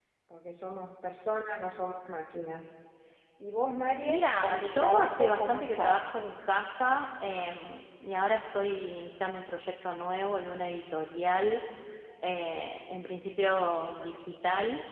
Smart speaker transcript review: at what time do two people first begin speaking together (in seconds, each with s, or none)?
4.0 s